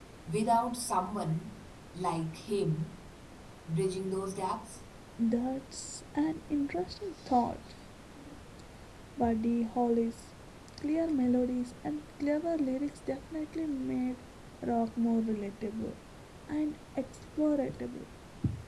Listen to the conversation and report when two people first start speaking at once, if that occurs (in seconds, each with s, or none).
none